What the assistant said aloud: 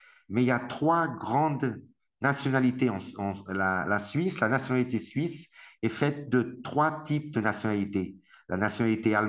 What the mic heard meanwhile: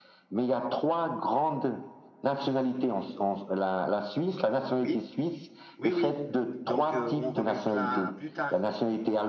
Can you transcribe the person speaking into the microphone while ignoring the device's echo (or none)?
Oui, oui, oui. Donc, euh, on remet cela à plus tard.